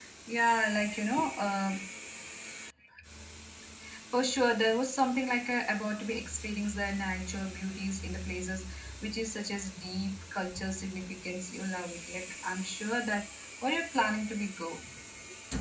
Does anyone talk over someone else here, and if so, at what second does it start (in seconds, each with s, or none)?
none